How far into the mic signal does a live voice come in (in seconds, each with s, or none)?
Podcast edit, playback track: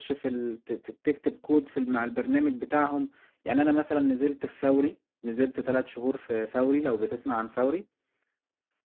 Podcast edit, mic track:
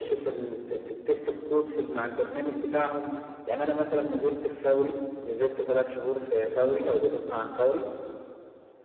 none